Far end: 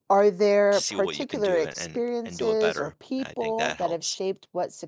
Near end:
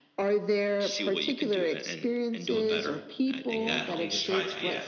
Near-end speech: present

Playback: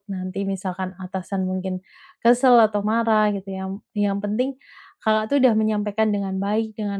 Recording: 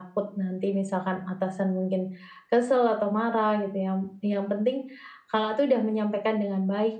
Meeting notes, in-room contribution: none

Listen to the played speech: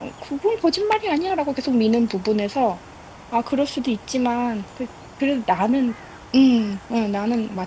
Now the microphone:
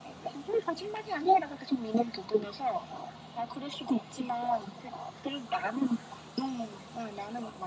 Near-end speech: none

